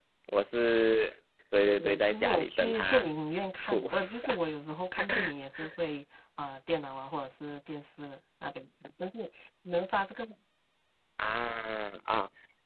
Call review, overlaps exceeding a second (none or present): present